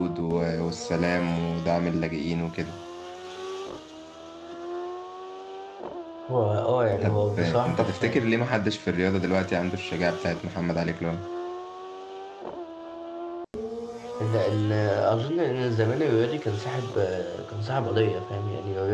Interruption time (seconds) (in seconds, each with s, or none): 7.0 s